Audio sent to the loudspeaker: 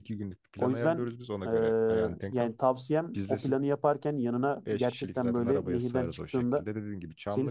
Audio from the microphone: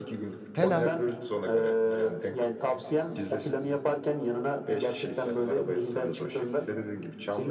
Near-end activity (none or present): present